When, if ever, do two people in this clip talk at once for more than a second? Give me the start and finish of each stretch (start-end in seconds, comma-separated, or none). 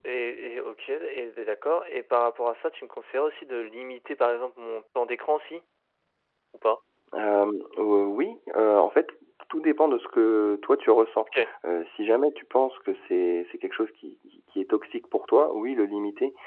none